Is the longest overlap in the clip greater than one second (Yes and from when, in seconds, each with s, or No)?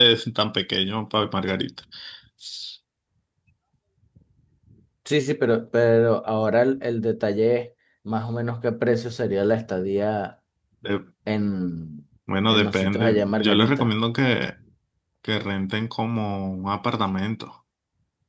Yes, from 12.5 s